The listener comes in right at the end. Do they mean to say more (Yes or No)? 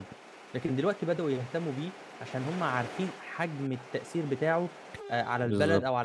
Yes